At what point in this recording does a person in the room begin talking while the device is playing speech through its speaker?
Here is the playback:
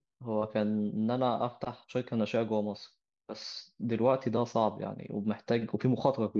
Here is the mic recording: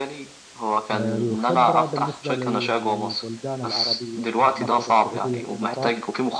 0.9 s

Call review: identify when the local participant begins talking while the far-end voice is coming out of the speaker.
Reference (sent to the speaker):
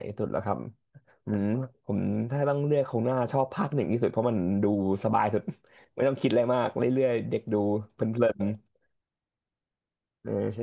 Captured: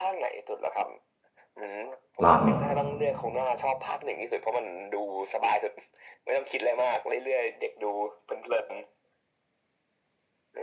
2.2 s

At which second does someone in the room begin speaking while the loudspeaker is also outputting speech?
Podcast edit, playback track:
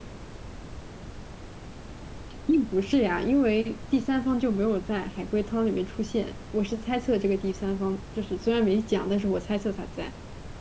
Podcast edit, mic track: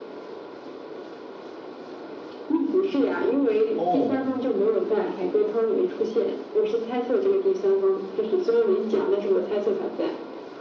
3.7 s

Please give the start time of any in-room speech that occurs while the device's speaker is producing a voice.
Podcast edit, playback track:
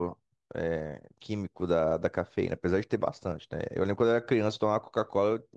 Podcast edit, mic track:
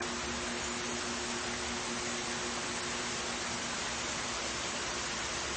none

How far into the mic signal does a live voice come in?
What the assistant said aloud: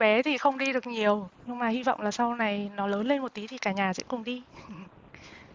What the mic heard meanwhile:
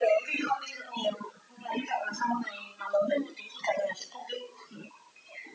none

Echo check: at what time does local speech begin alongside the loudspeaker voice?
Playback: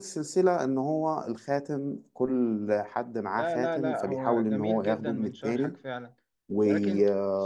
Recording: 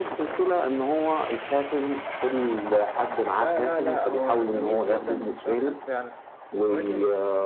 none

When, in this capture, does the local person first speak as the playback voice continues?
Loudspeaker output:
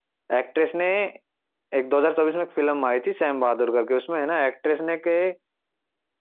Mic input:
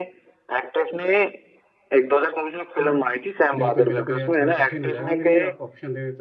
2.8 s

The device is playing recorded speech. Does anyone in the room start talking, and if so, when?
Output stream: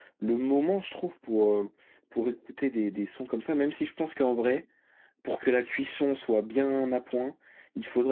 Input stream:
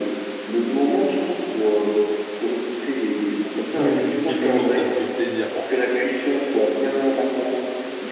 3.8 s

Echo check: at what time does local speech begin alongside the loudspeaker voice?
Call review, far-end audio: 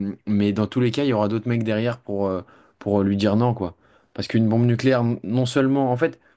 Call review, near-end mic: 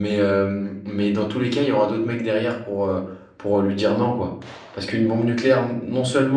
none

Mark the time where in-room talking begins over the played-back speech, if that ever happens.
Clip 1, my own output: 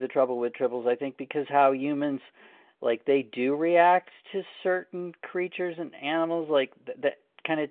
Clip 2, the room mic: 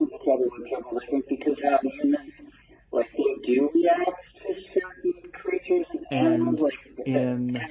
6.1 s

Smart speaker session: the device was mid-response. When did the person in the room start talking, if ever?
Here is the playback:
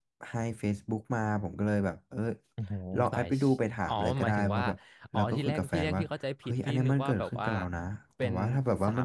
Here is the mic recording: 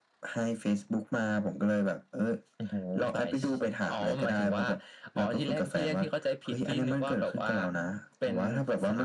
none

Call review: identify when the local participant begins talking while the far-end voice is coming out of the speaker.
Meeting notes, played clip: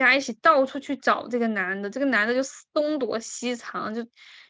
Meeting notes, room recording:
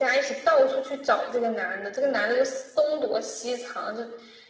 none

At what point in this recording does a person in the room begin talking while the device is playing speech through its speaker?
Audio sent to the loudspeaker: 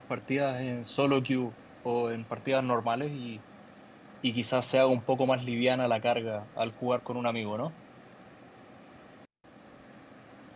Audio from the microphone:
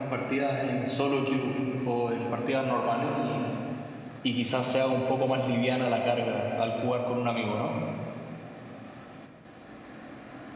none

